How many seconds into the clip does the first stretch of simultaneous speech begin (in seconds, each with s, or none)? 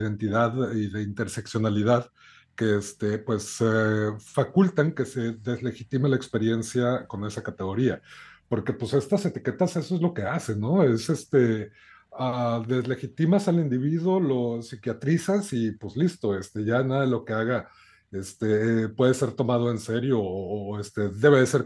none